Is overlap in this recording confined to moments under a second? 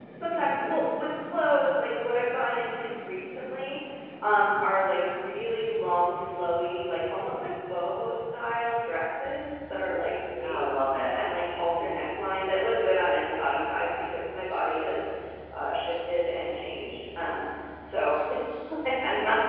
Yes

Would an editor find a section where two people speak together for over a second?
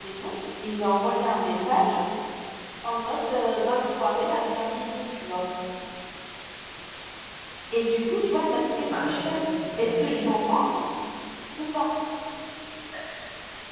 No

